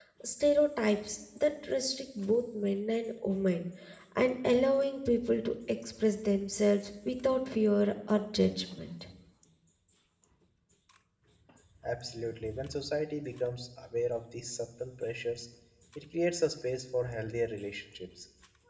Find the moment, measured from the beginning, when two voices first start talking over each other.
none

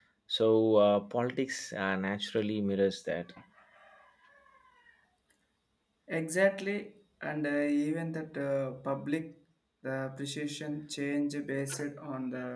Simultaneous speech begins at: none

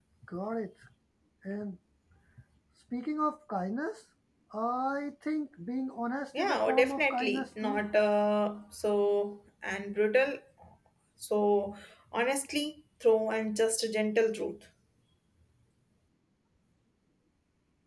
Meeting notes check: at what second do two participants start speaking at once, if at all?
6.3 s

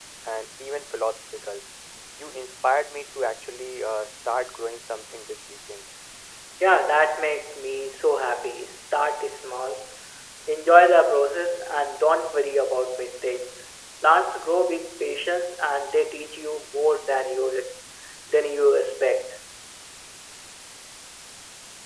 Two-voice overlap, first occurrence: none

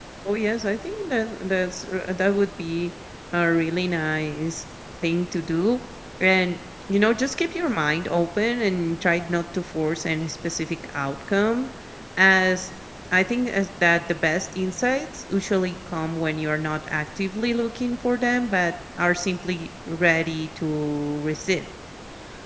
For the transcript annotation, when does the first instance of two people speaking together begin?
none

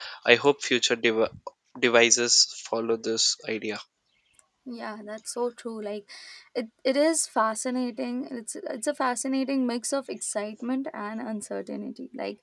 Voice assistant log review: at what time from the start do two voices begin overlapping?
none

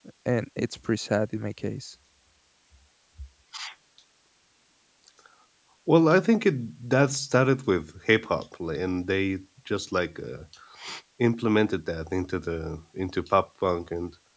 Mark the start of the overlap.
none

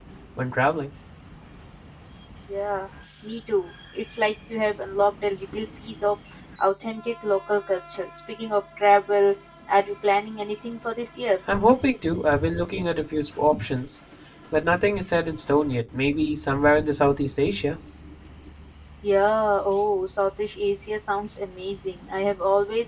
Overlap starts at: none

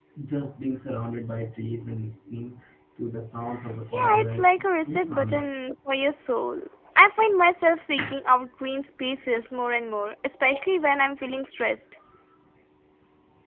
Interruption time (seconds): 3.9 s

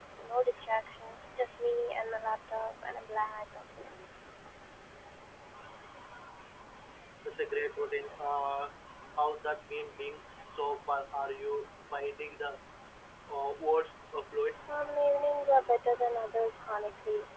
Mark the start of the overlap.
none

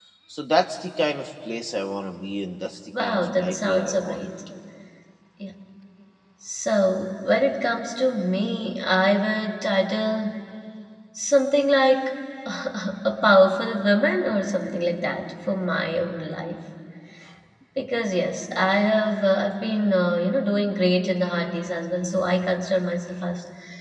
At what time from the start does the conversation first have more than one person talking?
2.9 s

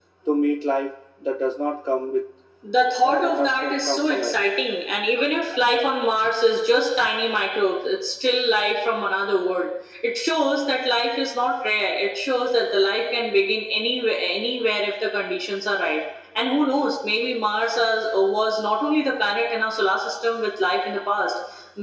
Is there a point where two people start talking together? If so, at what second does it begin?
3.0 s

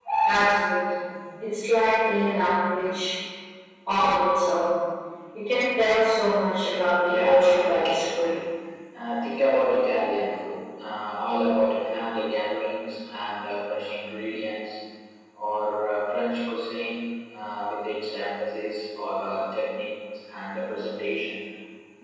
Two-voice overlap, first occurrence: 7.1 s

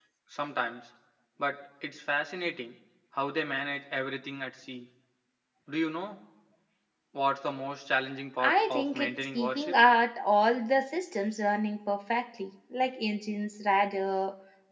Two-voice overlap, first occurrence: 8.4 s

